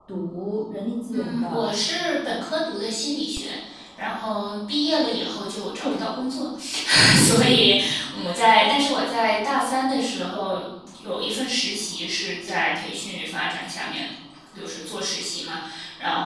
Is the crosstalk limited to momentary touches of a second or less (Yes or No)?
Yes